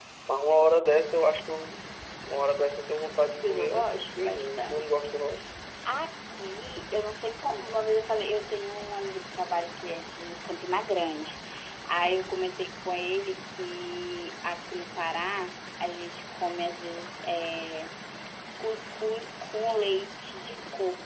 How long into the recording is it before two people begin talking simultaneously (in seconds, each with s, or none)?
3.1 s